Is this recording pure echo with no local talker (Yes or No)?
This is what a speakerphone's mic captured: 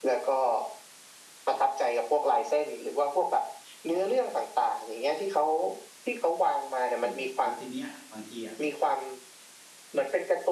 No